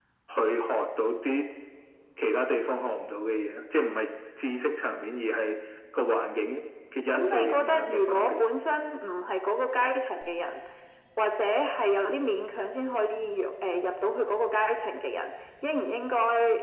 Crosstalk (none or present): present